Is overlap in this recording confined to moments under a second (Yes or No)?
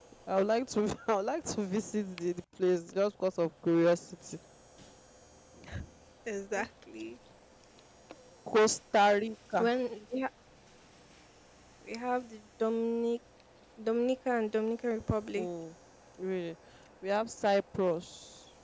Yes